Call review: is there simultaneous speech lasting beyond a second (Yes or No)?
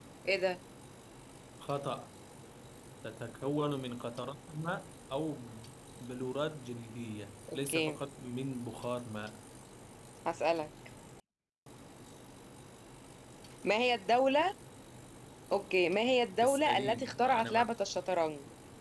Yes